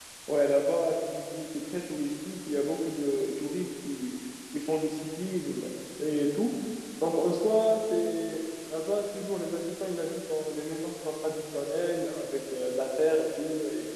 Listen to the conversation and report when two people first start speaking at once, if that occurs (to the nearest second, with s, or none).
none